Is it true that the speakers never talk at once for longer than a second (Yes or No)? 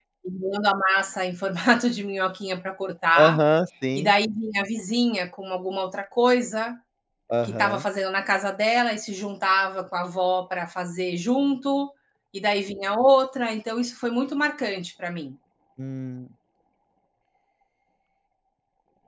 Yes